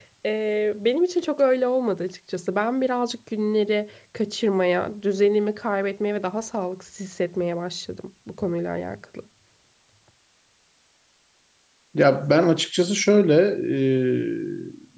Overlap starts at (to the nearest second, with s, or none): none